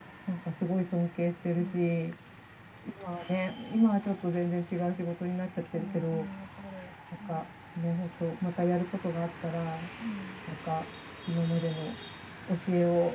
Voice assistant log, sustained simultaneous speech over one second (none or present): none